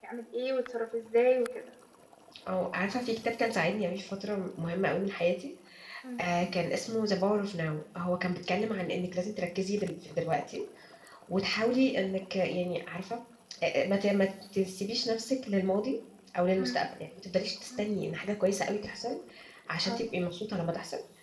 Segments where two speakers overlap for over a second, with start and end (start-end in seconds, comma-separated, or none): none